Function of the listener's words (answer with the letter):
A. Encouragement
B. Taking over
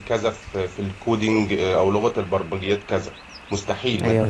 A